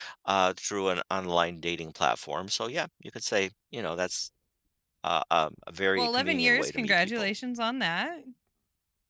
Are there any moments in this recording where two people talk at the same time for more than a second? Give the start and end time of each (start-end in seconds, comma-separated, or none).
6.0-7.3